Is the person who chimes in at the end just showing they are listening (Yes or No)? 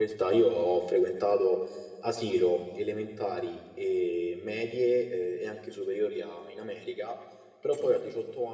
Yes